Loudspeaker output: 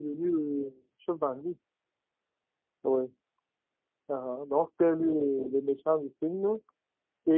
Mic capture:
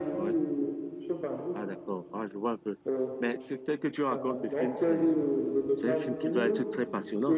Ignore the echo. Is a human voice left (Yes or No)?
Yes